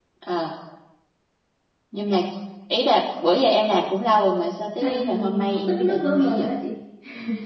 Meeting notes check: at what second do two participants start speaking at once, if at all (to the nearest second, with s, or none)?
5 s